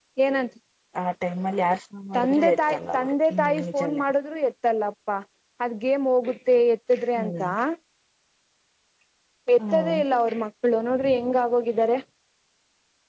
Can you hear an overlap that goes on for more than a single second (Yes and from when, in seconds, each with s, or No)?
Yes, from 2.2 s